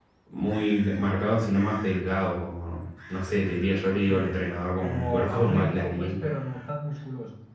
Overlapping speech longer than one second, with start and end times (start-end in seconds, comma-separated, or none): 4.8-6.1